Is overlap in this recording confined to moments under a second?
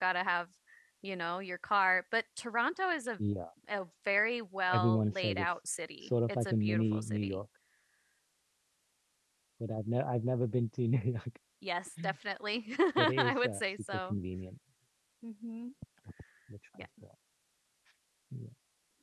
No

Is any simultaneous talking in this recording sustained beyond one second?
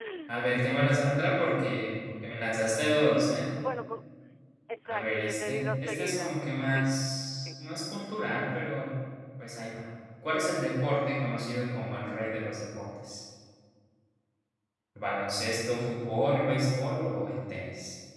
Yes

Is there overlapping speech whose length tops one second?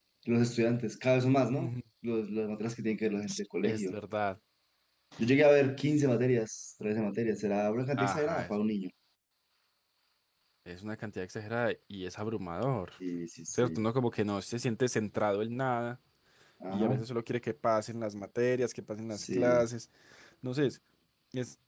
No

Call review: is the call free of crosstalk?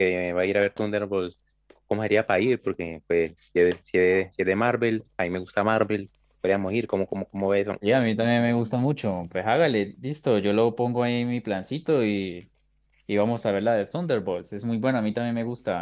Yes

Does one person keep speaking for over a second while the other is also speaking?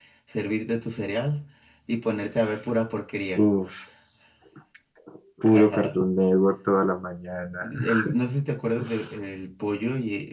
No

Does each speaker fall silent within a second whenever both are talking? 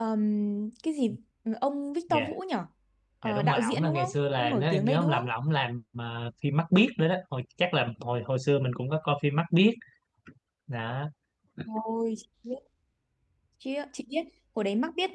No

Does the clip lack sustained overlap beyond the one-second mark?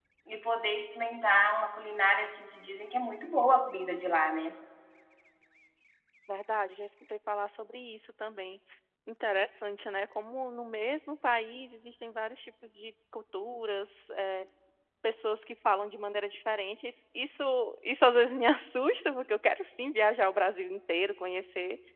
Yes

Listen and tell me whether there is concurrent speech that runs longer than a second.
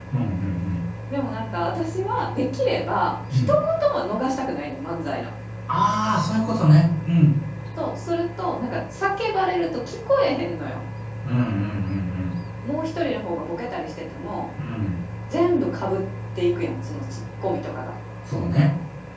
No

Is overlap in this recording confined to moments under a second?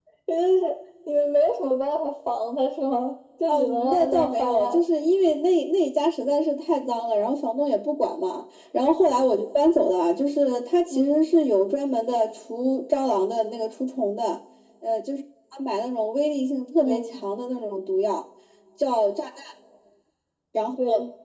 No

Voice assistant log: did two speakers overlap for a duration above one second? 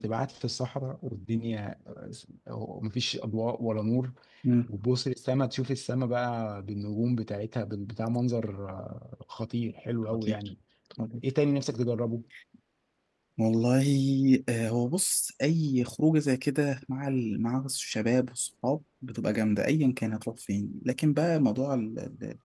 No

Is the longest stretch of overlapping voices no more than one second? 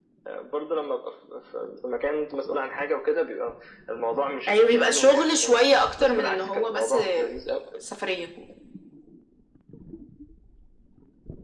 No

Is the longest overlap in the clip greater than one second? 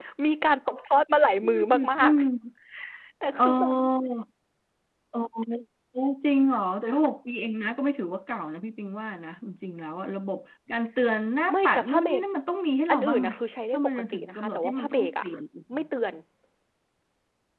Yes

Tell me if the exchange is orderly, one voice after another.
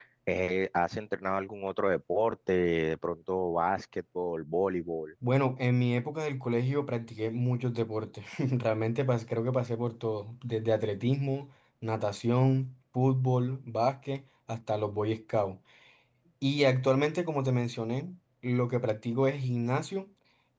Yes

